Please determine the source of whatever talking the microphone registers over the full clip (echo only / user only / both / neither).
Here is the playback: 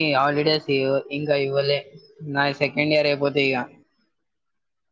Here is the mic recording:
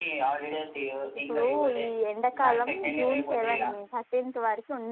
both